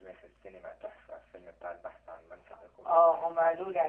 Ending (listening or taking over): taking over